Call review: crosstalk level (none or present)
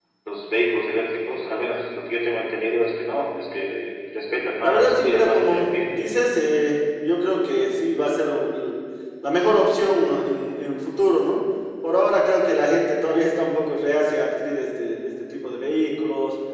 present